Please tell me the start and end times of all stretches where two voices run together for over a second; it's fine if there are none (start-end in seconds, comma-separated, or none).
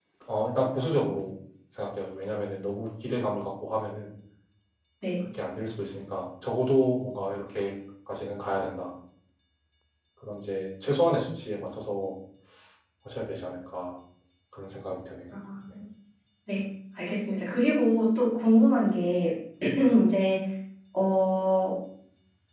none